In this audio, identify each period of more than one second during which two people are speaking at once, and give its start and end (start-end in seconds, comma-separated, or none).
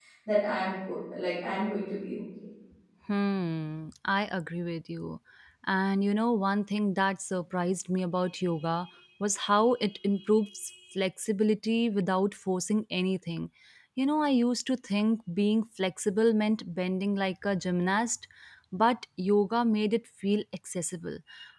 none